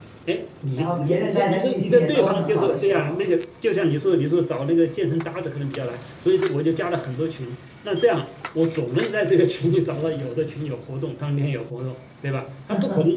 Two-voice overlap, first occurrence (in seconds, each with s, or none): 0.8 s